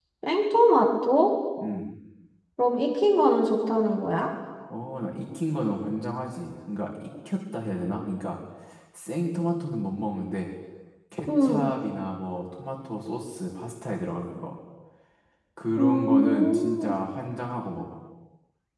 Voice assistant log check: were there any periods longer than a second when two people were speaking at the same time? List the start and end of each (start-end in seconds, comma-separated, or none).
15.8-17.0